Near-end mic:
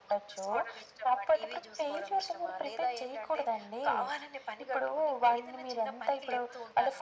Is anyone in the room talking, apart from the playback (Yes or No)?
No